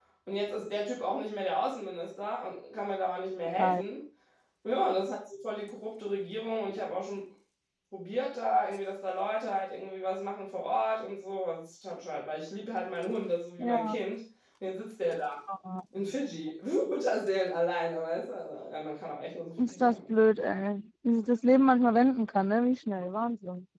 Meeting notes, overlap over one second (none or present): none